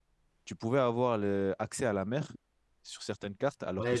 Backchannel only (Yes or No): No